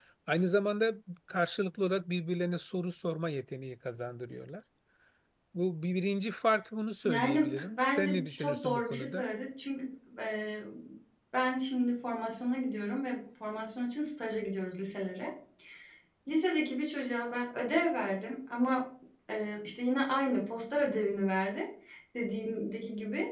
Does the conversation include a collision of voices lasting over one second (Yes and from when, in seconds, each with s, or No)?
Yes, from 7.0 s